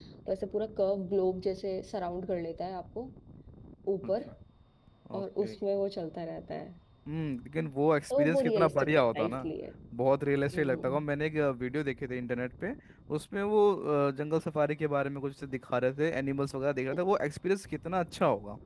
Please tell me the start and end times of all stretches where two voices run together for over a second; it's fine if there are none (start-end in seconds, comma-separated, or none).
8.1-9.5